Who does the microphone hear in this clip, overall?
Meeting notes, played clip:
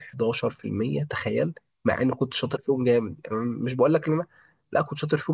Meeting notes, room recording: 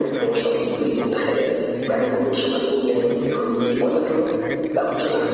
both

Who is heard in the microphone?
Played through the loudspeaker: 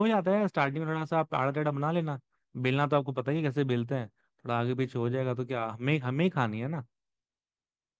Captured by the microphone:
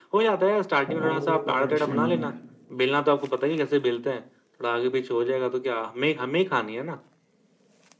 both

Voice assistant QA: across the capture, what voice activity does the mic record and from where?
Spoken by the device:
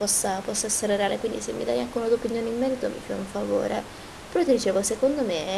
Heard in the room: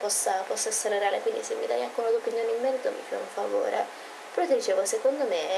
echo only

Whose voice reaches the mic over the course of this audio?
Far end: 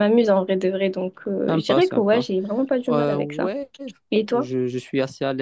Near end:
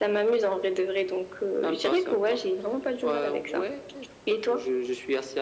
echo only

